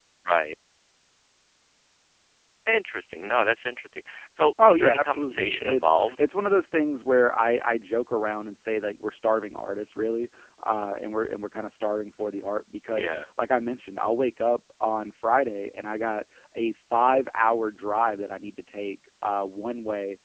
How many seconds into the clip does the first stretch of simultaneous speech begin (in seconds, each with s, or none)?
4.7 s